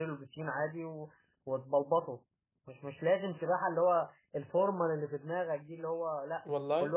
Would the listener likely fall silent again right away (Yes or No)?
Yes